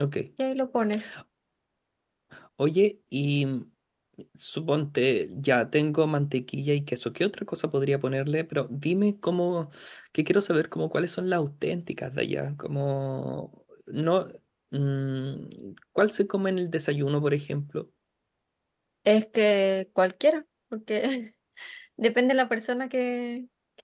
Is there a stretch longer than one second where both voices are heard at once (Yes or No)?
No